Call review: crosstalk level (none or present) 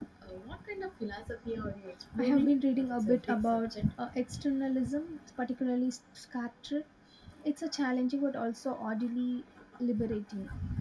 present